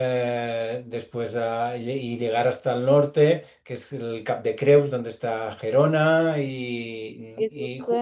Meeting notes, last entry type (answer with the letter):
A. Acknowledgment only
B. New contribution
B